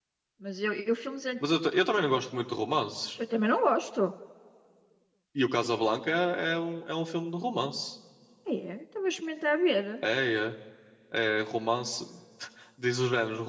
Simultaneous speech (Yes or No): No